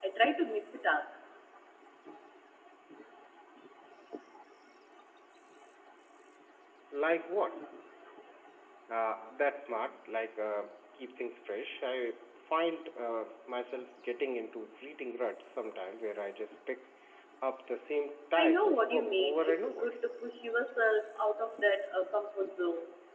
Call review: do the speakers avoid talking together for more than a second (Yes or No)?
No